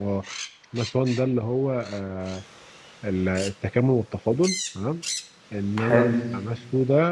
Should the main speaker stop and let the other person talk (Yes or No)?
No